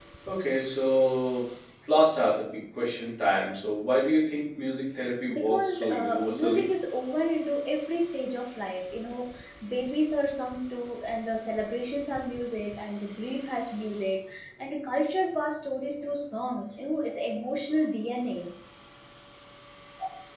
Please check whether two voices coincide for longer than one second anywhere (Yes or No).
Yes